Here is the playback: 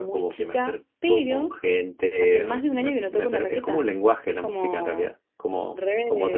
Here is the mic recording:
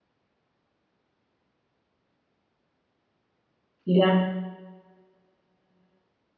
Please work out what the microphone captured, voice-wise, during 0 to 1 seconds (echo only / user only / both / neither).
neither